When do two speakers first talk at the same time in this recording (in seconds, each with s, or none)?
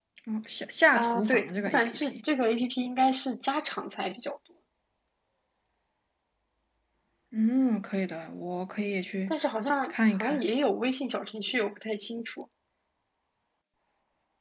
0.9 s